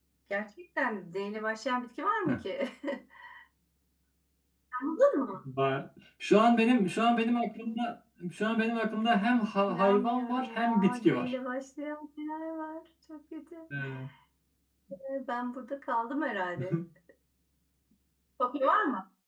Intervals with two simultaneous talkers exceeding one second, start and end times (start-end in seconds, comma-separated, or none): 9.7-11.3